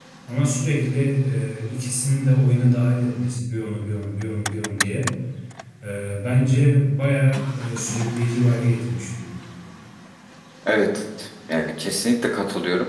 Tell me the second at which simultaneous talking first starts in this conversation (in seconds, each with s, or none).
none